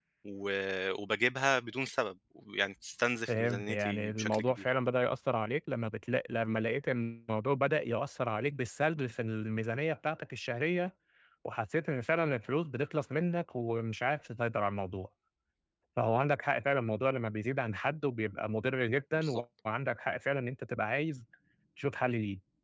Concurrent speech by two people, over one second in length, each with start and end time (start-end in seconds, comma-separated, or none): 3.3-4.7